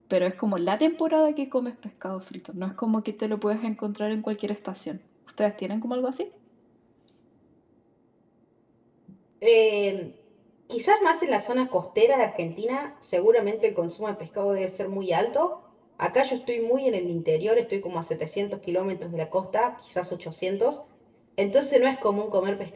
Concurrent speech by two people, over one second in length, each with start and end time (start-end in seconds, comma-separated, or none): none